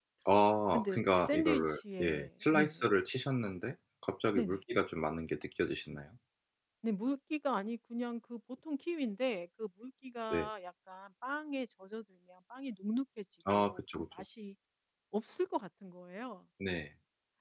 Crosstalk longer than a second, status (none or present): present